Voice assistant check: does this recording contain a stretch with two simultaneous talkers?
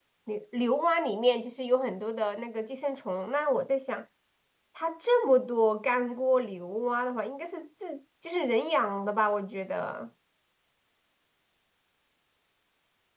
No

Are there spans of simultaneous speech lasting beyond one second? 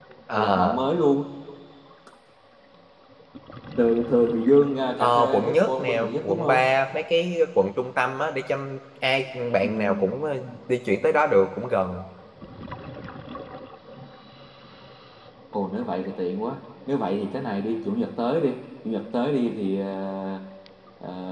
Yes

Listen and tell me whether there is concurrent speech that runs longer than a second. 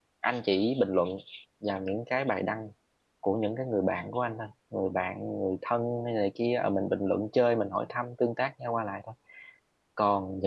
No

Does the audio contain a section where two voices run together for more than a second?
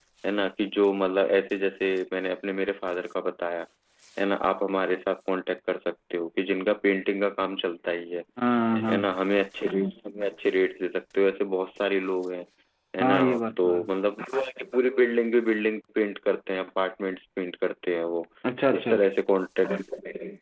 No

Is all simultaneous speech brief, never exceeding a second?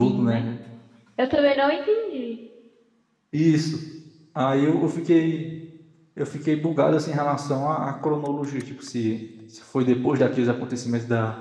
Yes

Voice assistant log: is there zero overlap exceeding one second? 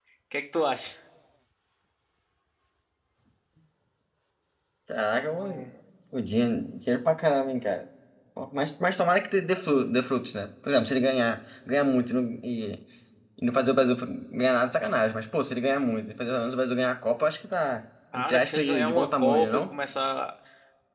No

